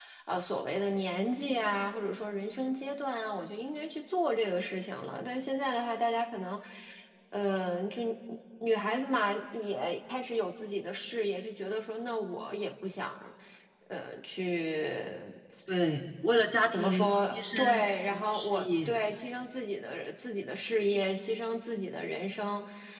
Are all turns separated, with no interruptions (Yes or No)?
No